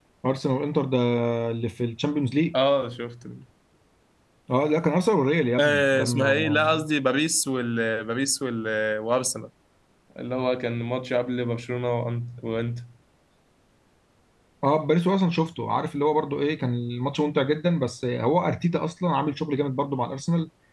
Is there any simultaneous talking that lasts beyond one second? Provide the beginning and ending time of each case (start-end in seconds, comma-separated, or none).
5.6-6.8